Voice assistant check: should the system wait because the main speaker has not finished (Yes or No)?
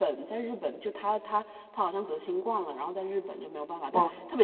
Yes